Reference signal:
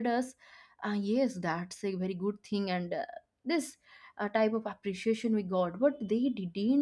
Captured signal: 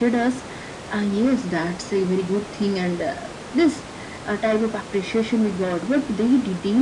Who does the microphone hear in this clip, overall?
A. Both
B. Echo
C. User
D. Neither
B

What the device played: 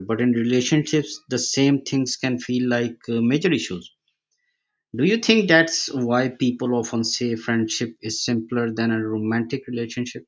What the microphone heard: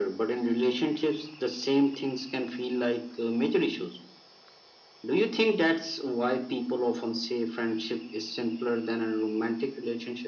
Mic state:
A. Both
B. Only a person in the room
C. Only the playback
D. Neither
C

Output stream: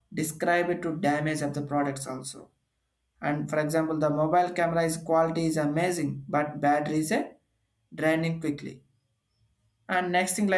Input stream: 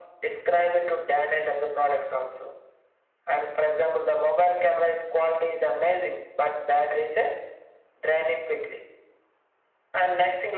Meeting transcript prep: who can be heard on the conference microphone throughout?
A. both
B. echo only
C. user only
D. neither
B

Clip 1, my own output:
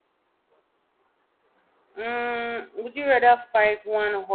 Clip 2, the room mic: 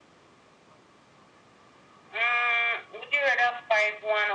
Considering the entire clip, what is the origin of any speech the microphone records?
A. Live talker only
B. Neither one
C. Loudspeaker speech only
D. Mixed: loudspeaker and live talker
C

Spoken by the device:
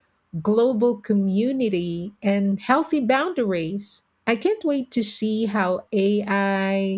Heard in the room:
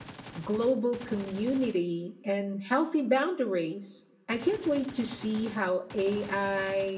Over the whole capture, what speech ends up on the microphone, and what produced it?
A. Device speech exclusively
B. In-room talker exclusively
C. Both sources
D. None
A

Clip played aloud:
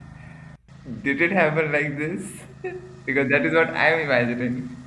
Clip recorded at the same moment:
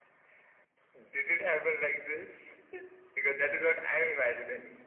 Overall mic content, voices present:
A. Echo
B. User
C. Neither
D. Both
A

